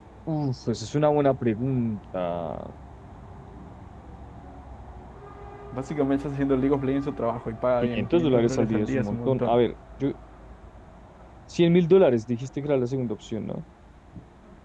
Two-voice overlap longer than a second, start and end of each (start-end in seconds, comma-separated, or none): 7.8-9.6